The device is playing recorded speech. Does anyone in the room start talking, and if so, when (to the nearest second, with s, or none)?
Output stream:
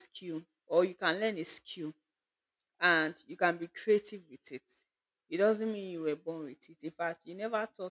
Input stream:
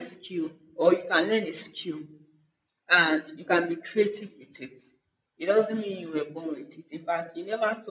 none